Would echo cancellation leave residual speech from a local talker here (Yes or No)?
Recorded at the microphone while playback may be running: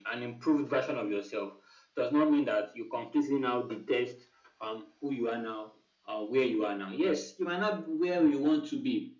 No